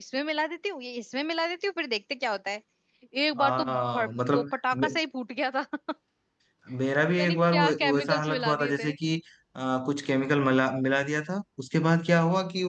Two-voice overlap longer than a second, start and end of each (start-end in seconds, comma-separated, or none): 3.4-4.9, 7.2-8.9